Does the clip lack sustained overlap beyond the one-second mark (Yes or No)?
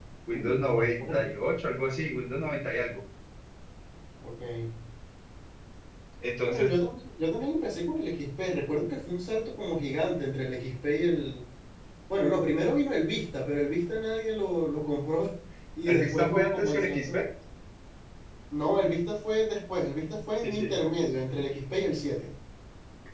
No